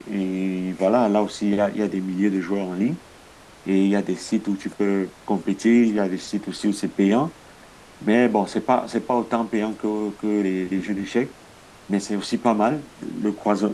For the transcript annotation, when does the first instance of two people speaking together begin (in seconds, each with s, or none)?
none